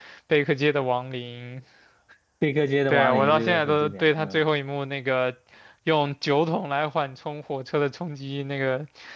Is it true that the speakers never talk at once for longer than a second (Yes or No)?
No